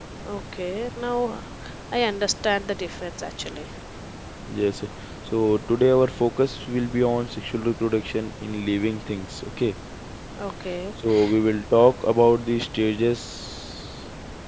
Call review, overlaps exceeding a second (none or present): none